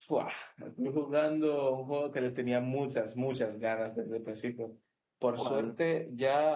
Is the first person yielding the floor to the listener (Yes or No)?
No